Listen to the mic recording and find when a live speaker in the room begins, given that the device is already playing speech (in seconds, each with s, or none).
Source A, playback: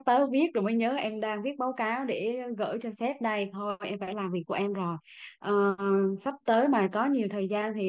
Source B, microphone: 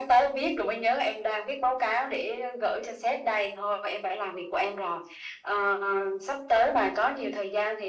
none